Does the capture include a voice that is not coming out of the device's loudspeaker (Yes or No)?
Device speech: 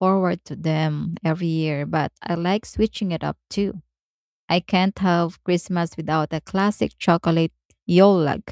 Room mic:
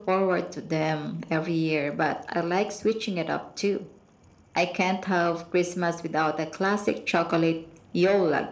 No